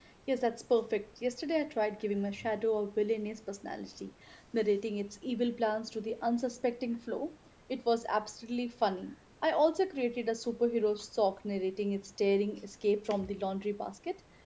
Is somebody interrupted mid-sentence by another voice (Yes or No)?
No